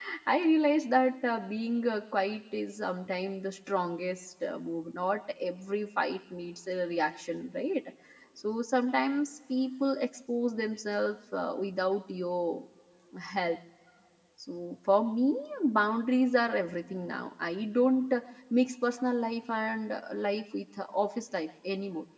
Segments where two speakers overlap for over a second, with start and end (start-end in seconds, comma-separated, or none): none